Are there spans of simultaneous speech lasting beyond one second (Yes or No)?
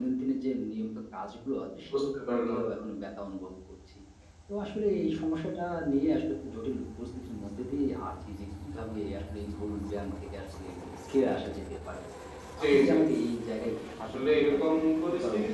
Yes